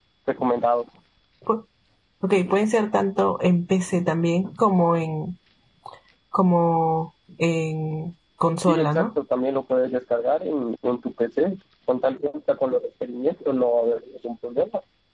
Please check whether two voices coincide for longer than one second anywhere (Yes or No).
No